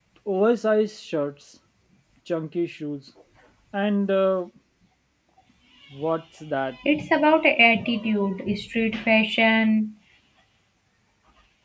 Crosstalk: none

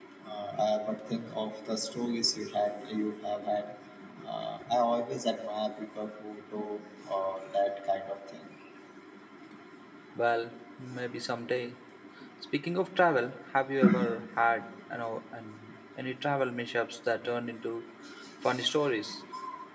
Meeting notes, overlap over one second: none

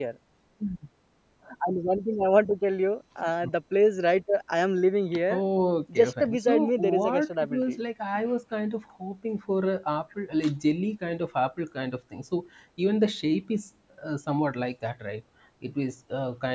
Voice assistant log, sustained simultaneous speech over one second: present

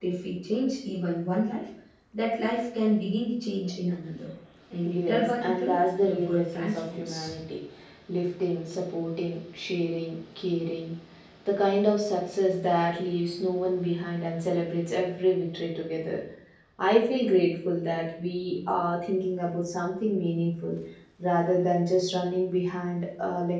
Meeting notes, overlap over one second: present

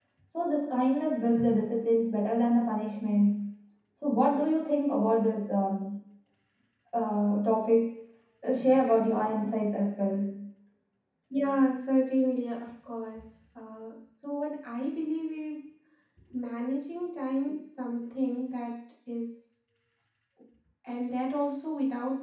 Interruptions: none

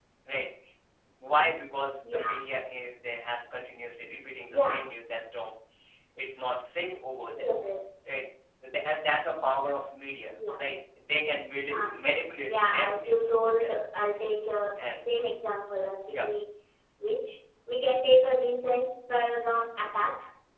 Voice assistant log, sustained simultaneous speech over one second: present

